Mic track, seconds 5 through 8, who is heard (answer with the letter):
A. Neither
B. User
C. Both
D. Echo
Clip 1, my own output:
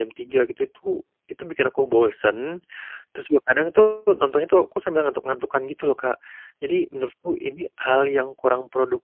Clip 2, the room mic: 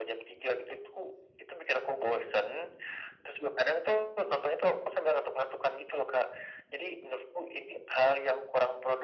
D